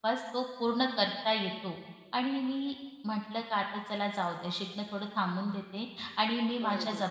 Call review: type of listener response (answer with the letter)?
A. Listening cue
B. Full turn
A